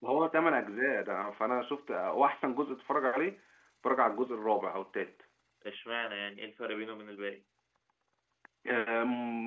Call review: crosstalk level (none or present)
none